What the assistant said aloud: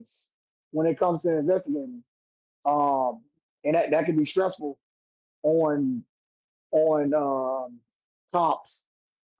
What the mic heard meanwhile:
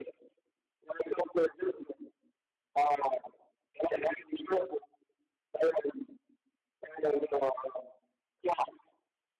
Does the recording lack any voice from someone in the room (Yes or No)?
Yes